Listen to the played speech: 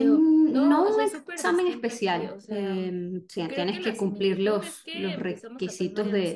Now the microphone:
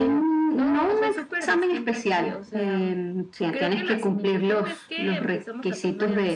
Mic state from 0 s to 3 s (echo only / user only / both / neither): echo only